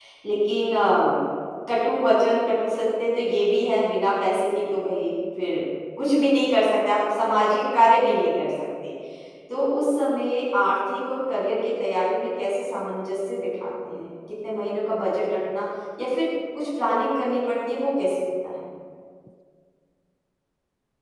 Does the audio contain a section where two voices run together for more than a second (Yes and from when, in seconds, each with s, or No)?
No